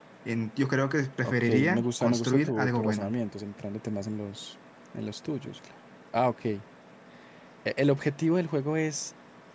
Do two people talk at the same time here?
Yes, from 1.2 s

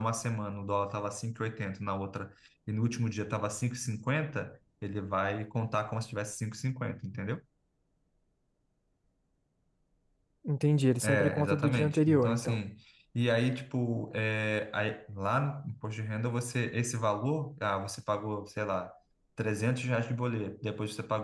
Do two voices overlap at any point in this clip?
Yes, from 11.0 s

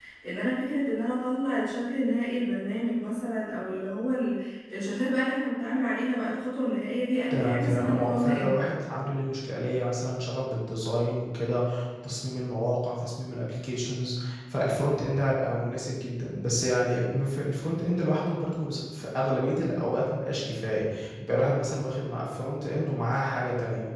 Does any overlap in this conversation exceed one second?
Yes, from 7.3 s

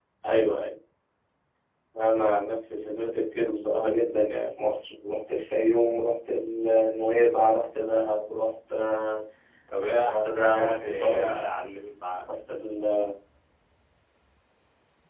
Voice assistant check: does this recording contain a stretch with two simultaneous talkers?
Yes, from 9.9 s

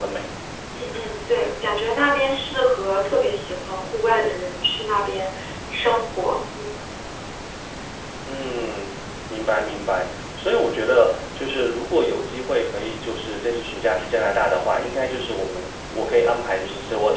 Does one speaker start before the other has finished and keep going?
No

